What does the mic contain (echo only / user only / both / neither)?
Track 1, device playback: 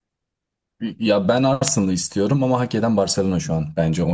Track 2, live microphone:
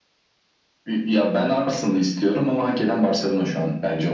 echo only